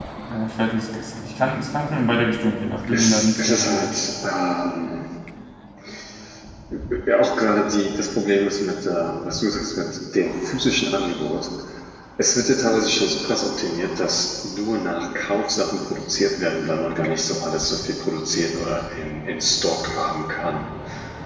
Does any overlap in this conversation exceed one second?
Yes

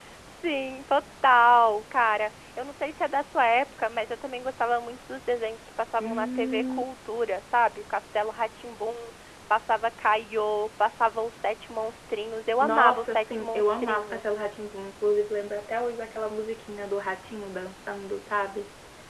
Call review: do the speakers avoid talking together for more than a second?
No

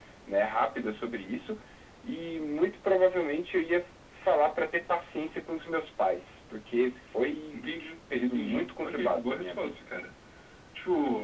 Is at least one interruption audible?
Yes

